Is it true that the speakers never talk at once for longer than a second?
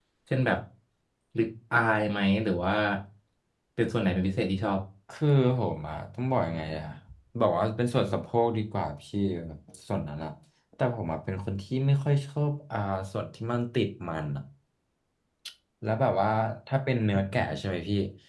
Yes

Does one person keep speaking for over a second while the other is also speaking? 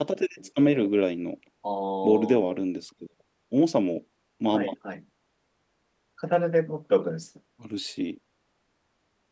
No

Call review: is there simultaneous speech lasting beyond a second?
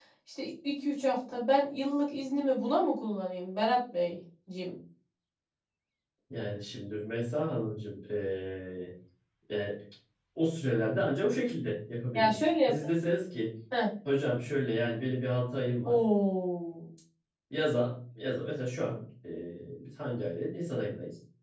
No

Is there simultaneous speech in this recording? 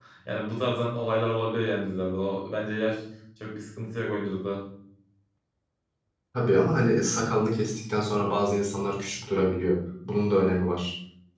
No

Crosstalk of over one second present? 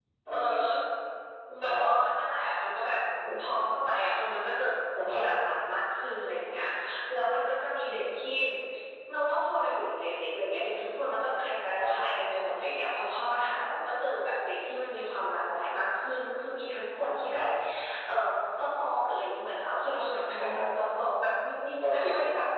No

